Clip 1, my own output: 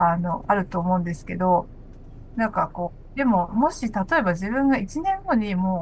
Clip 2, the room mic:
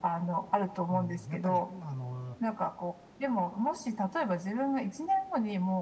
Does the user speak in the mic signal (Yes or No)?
Yes